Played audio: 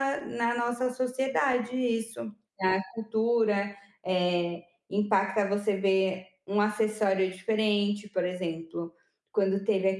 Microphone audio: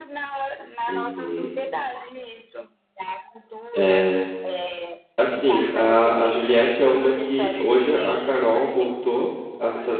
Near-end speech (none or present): present